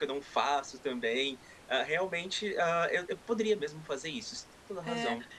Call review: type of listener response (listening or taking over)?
taking over